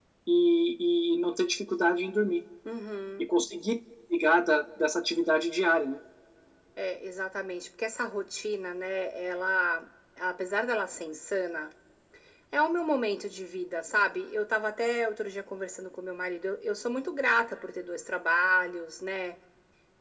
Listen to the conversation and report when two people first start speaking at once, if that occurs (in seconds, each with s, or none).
none